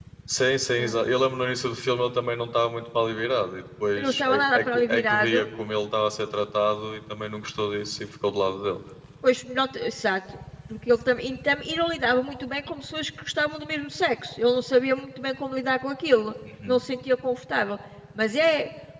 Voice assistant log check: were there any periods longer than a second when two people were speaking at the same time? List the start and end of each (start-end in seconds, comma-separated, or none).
4.0-5.5